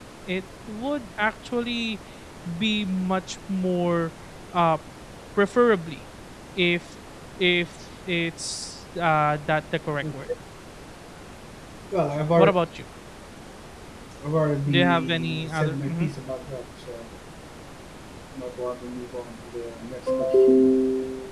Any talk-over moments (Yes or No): Yes